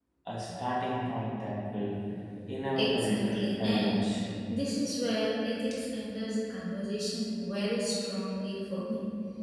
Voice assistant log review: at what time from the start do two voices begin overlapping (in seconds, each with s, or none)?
2.8 s